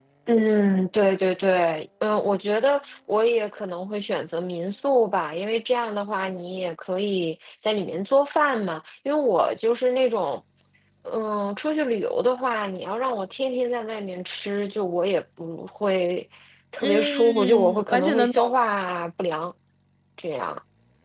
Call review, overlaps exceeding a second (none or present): present